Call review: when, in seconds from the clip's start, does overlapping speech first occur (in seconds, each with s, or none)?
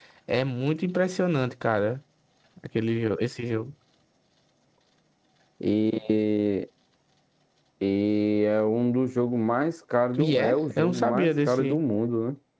10.2 s